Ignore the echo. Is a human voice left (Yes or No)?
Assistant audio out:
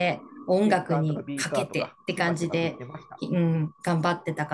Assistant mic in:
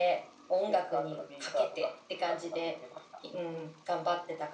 No